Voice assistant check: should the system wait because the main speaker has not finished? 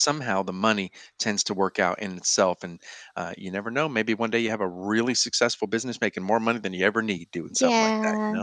No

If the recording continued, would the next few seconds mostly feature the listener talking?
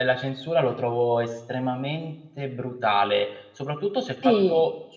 No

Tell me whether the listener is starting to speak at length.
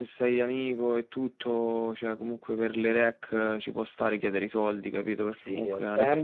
Yes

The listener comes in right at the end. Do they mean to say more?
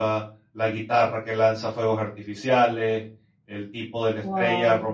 No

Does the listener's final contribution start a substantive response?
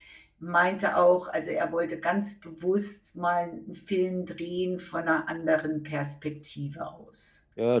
Yes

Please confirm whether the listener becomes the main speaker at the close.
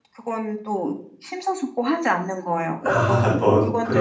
Yes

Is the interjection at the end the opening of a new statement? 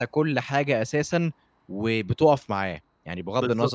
Yes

